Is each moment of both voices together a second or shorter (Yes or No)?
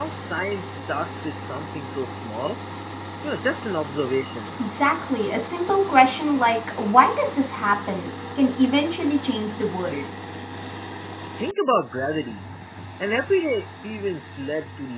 Yes